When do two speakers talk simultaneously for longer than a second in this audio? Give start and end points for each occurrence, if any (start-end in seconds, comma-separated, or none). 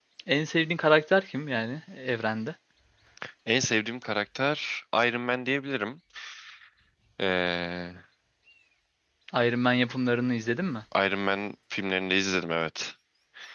none